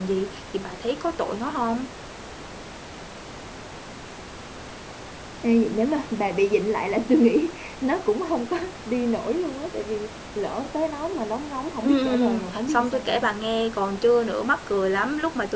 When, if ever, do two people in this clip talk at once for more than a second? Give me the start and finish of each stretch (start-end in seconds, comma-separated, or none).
11.8-13.3